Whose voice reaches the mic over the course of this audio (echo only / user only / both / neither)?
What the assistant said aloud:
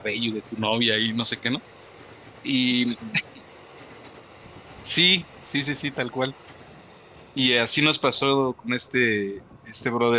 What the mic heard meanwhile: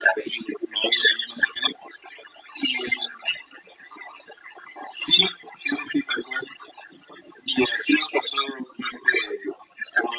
echo only